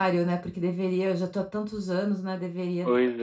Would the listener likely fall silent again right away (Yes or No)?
Yes